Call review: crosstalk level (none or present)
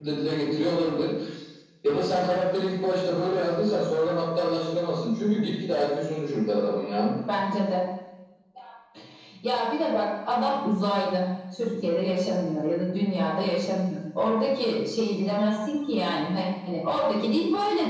none